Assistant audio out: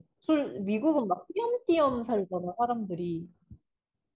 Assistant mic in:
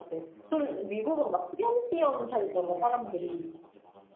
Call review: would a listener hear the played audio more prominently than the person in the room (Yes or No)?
Yes